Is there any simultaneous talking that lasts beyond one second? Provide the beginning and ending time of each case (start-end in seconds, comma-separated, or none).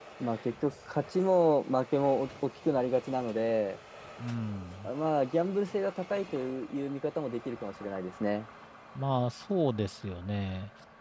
none